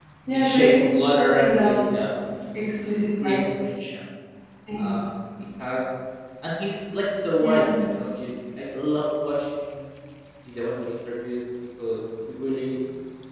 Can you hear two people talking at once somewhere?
Yes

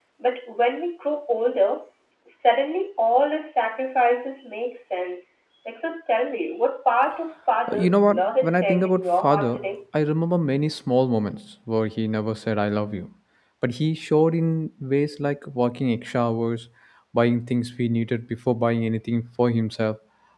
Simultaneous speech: Yes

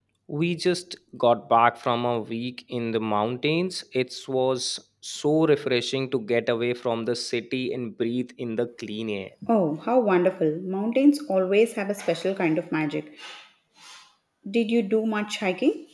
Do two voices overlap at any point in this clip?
No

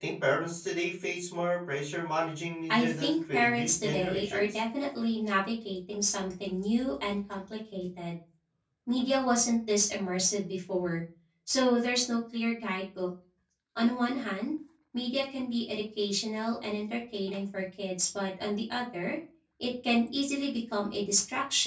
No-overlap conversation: No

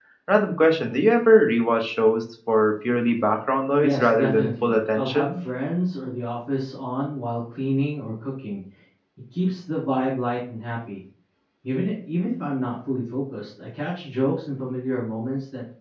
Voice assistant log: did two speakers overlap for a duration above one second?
Yes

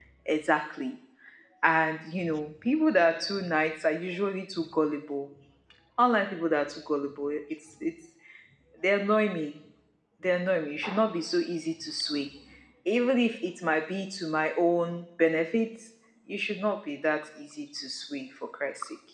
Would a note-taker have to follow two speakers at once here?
No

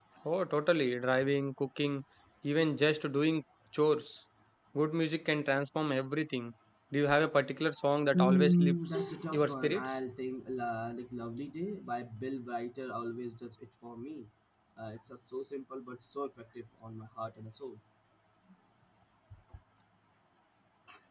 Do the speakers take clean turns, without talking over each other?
No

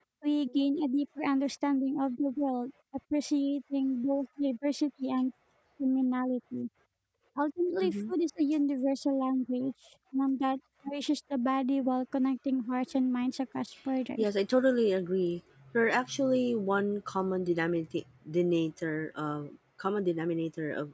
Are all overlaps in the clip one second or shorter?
Yes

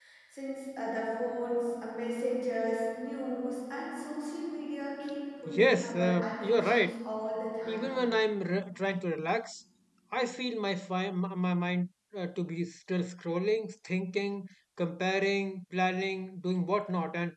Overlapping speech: Yes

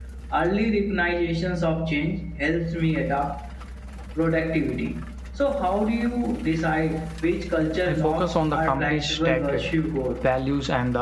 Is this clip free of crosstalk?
No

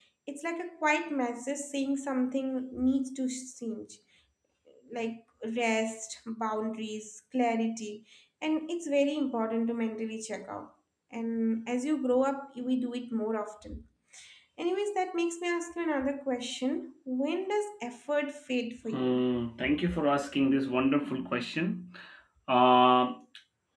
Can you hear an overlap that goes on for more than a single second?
No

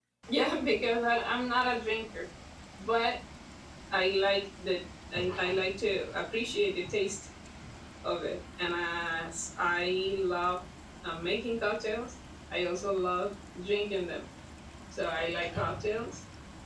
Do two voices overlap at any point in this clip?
No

